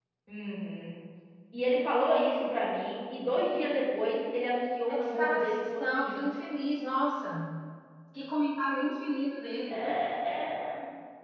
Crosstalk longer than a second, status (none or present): present